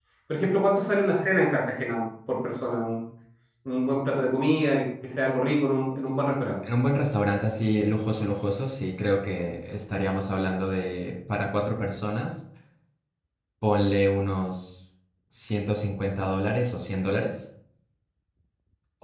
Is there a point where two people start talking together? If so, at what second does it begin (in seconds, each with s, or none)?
none